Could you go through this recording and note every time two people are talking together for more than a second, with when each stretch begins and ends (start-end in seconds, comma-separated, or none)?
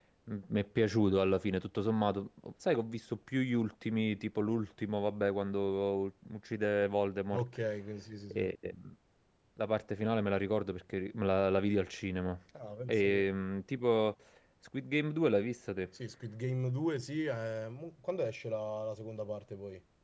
none